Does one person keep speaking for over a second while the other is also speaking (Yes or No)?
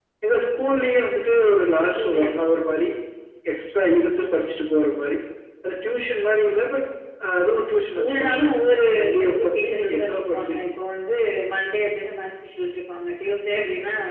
Yes